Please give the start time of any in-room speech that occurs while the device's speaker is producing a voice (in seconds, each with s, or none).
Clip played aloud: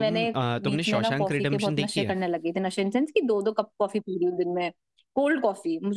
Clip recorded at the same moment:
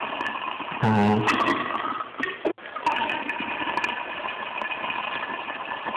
0.8 s